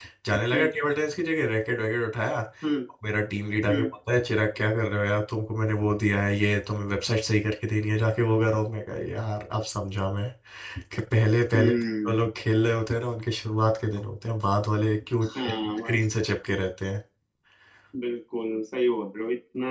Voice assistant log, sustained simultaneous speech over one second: none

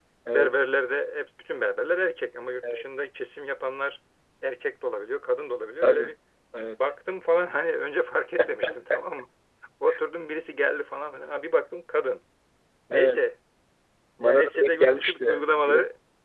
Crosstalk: present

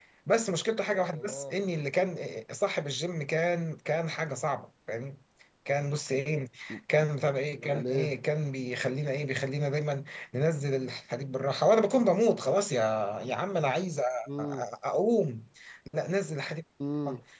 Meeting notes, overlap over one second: none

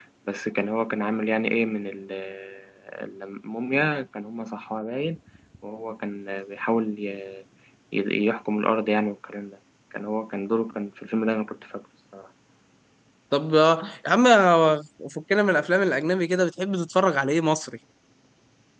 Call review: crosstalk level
none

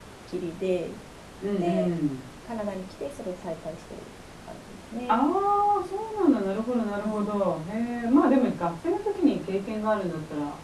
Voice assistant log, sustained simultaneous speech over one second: none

